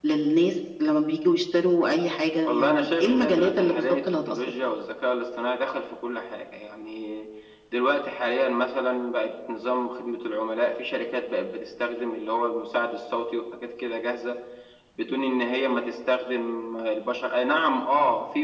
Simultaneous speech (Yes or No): Yes